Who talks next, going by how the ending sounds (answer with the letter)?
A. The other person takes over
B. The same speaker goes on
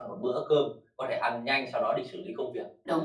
A